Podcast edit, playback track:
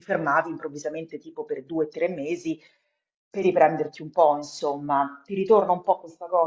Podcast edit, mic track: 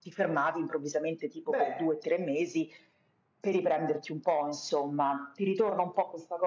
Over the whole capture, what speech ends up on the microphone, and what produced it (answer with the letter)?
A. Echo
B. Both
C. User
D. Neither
B